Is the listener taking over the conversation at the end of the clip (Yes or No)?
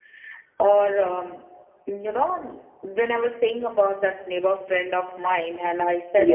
No